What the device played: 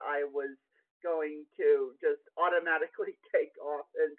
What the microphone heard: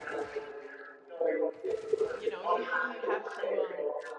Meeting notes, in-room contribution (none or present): present